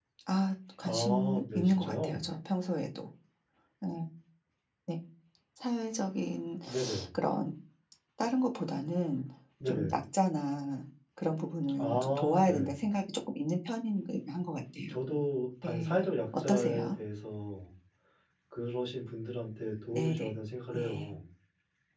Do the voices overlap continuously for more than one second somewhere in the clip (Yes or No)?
Yes